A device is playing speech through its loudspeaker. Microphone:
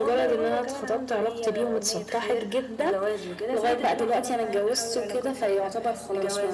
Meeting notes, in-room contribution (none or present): none